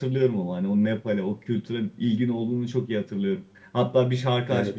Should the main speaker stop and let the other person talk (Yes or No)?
No